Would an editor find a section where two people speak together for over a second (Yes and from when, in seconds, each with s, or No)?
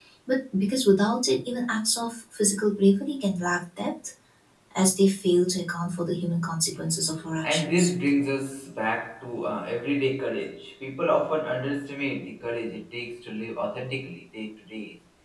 No